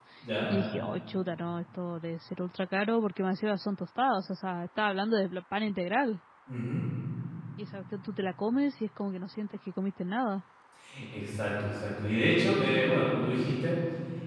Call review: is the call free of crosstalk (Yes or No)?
Yes